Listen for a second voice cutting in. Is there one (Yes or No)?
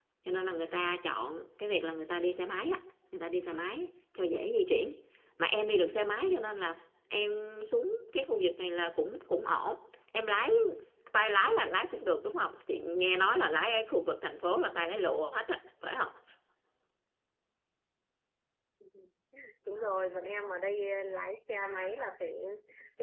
No